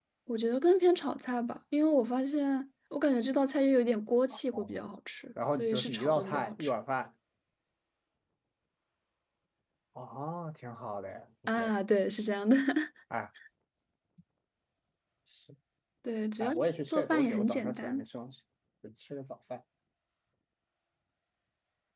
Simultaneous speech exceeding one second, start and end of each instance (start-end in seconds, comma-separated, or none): 5.5-6.7, 16.4-18.0